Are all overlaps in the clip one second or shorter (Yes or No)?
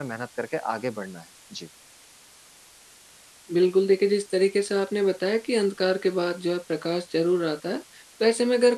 Yes